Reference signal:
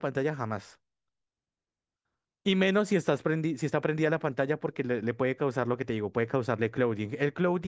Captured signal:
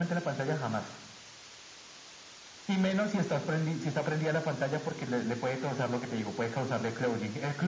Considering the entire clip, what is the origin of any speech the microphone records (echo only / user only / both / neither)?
echo only